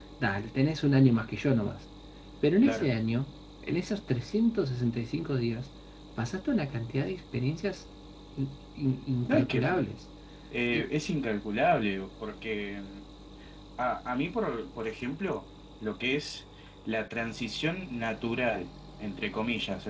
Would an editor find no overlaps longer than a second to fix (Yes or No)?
Yes